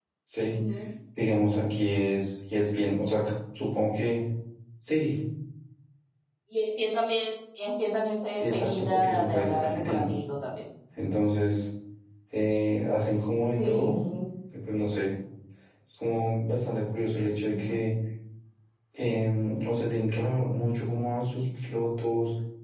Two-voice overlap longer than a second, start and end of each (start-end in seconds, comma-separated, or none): 8.3-10.0